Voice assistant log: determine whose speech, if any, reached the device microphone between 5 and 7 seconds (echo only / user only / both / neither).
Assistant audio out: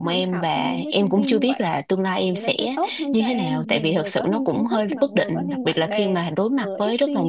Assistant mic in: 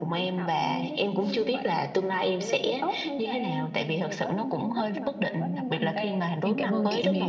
both